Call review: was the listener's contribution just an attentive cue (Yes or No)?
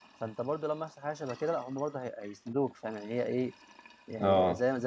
No